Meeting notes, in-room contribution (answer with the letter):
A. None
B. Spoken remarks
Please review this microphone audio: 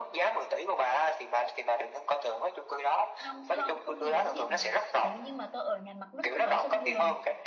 B